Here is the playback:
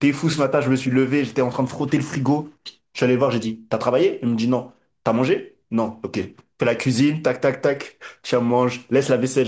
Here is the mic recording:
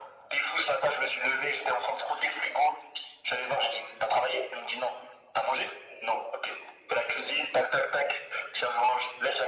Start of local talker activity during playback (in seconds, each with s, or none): none